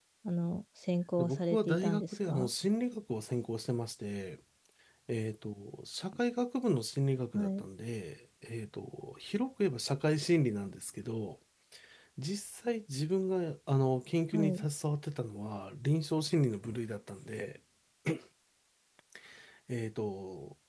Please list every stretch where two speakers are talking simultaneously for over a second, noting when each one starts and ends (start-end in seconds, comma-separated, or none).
1.2-2.5